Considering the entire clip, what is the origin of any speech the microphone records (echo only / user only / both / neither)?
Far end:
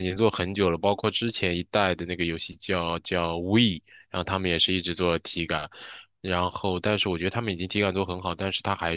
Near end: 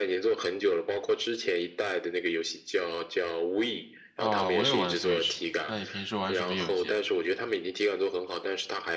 both